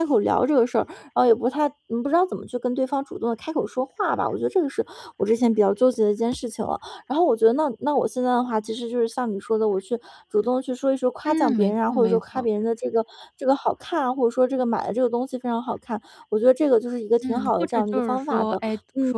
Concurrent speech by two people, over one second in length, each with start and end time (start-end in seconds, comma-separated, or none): 11.2-12.5, 17.2-18.6